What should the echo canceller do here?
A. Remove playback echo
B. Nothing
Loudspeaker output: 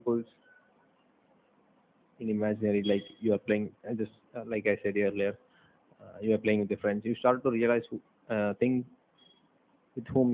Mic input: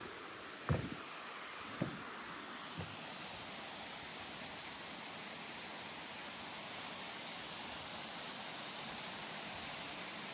B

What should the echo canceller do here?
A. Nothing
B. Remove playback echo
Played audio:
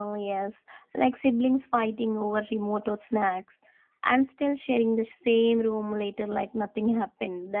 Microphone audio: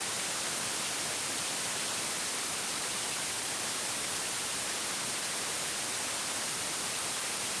A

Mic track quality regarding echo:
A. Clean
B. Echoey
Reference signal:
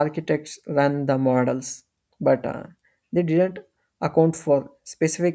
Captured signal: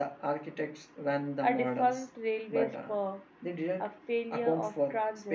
B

